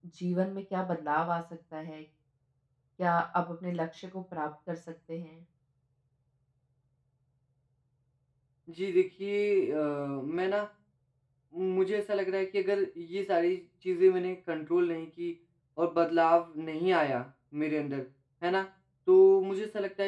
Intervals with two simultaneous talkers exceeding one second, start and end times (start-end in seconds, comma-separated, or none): none